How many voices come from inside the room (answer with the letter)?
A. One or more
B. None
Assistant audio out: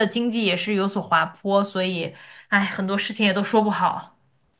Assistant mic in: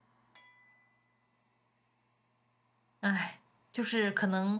A